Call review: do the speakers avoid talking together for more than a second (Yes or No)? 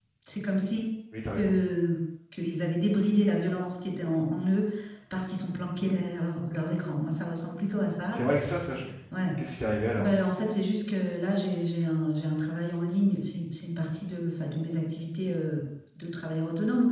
Yes